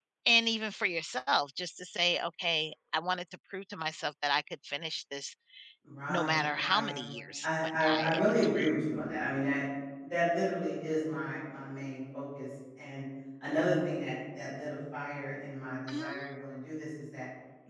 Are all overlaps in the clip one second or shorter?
No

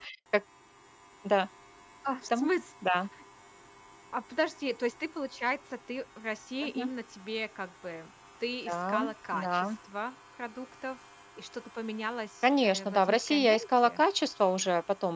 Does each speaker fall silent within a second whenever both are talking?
No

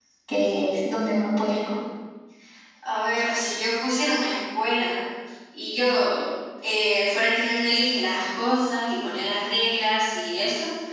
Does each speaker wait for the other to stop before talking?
Yes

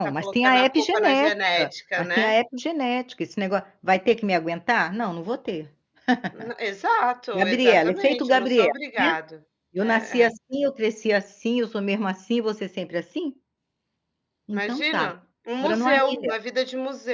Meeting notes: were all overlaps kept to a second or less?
No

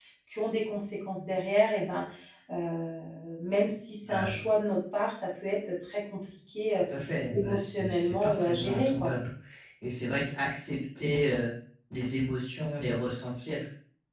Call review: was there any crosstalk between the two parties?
Yes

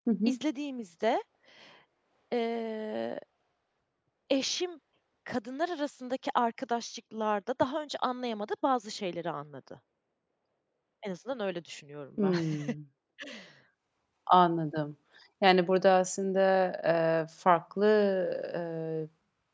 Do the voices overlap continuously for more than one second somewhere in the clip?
No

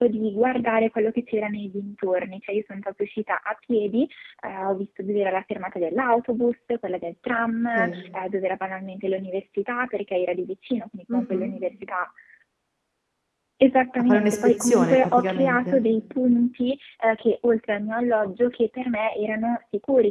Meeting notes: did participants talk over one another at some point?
Yes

